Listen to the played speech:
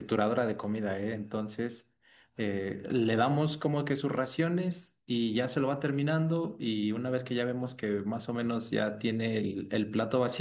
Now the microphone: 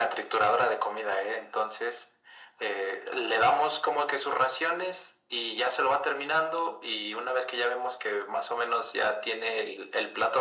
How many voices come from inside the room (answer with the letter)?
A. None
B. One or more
A